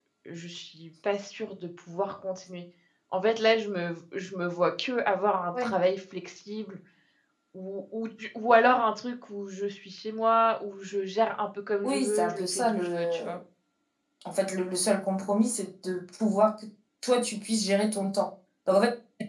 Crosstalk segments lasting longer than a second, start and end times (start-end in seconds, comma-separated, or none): 11.8-13.4